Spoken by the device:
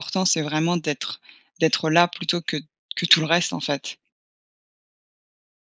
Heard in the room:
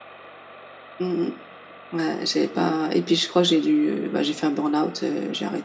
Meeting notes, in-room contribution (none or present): present